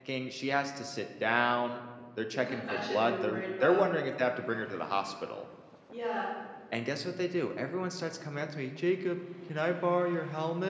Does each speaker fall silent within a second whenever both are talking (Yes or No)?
No